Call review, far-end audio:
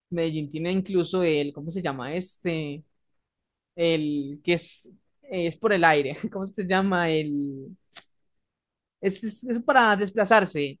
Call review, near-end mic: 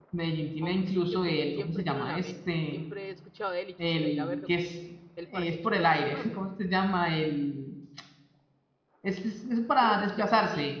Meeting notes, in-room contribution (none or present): present